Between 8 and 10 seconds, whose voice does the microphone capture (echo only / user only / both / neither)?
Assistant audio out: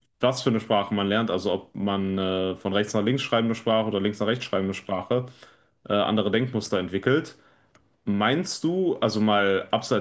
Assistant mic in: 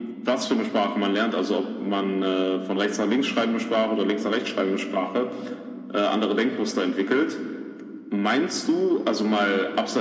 echo only